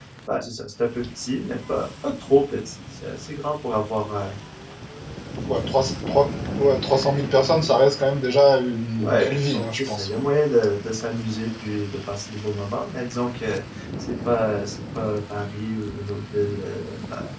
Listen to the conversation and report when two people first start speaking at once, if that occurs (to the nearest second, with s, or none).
9 s